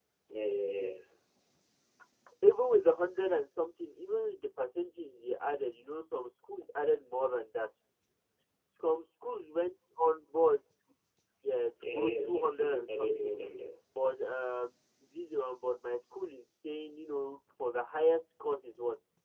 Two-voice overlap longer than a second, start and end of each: 11.8-13.3

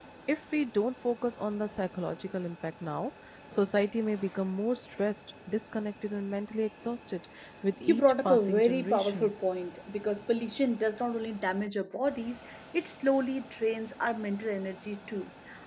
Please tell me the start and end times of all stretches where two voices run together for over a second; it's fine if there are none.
7.9-9.3

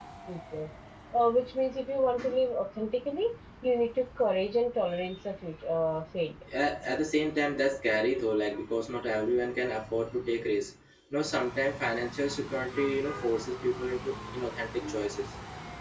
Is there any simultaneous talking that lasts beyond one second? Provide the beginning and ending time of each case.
none

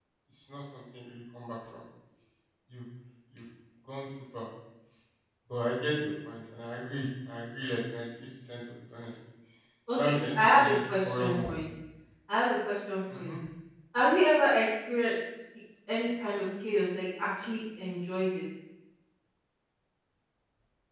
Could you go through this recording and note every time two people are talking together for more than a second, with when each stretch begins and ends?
10.1-11.5

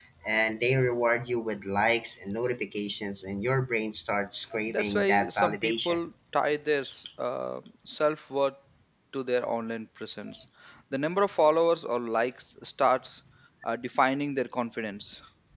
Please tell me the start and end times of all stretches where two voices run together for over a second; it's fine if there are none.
4.7-6.0

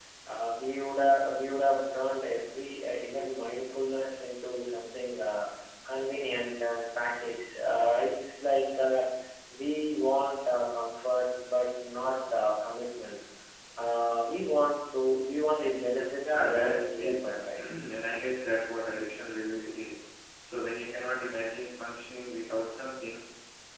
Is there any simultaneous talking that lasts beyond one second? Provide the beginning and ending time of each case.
16.2-17.6

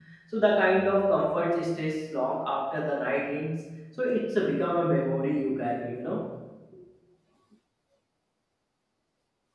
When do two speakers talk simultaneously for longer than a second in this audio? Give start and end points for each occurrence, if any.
none

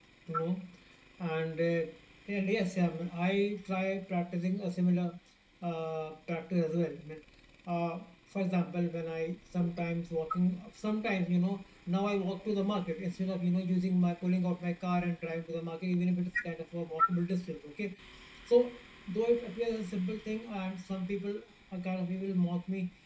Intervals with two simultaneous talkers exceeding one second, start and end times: none

